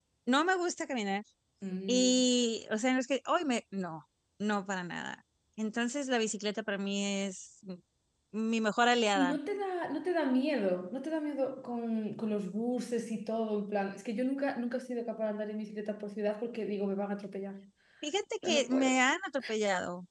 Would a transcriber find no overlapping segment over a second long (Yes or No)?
Yes